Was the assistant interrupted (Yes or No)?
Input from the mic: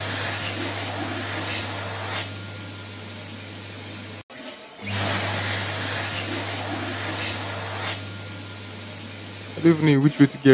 Yes